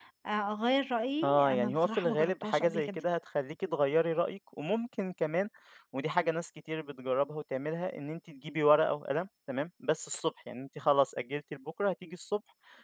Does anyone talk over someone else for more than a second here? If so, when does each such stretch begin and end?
1.2-3.0

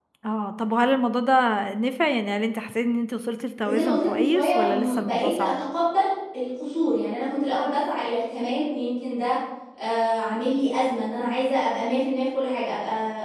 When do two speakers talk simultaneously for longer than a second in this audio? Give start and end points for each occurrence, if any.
3.6-5.6

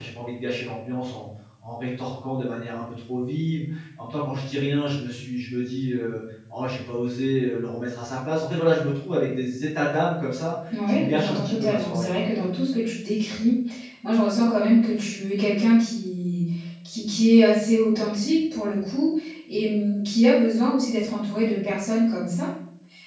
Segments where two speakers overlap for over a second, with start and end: 10.9-12.1

